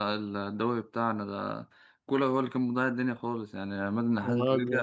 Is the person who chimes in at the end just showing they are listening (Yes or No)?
Yes